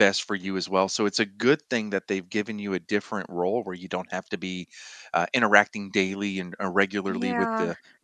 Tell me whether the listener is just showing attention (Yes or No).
Yes